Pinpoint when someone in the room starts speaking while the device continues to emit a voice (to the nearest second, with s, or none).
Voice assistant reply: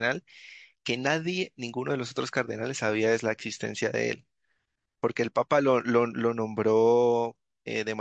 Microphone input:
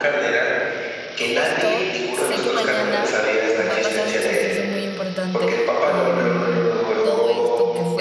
1 s